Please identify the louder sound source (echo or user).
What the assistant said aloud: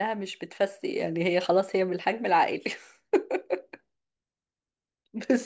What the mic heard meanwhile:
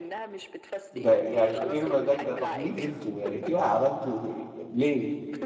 user